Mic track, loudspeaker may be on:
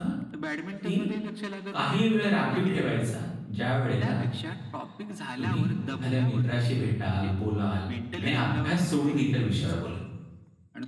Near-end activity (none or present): present